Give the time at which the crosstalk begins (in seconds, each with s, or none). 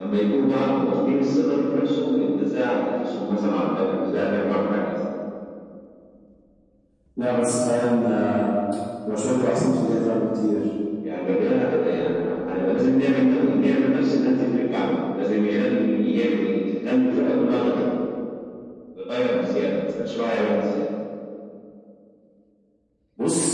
none